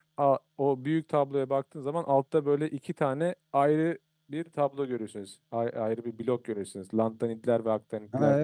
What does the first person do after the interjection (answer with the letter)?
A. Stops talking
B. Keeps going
A